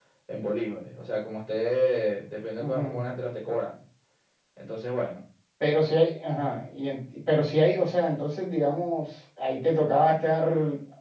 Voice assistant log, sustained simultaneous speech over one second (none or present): none